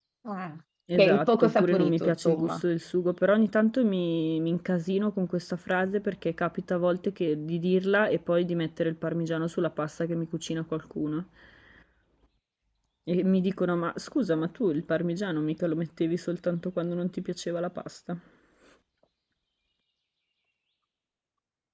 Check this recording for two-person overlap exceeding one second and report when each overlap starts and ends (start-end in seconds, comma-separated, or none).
1.0-2.6